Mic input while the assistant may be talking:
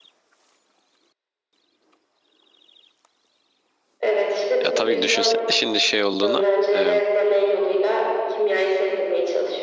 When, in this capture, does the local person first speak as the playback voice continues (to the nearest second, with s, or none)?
5 s